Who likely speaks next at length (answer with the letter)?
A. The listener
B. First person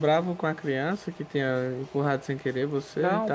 A